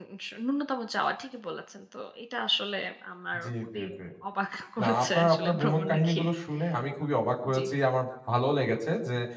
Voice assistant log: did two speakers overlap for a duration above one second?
Yes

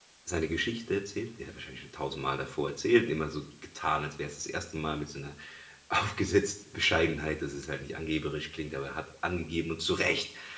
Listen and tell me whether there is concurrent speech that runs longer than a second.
No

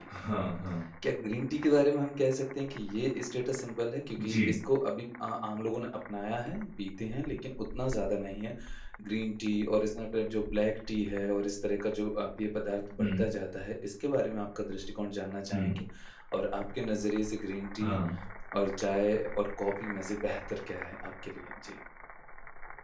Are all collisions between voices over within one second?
Yes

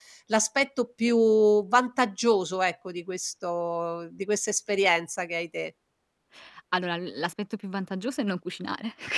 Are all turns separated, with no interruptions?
Yes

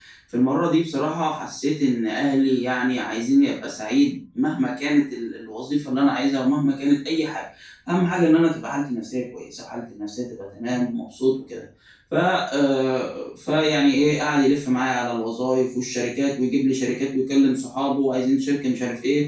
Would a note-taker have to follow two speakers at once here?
No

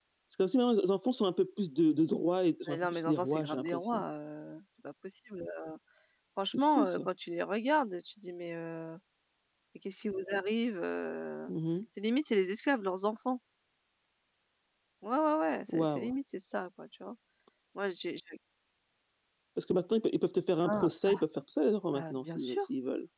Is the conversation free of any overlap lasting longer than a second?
No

